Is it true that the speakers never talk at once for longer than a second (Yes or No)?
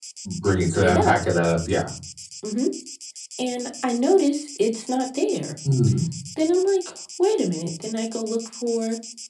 Yes